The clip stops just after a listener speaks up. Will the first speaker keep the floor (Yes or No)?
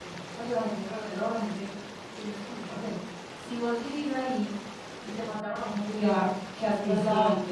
No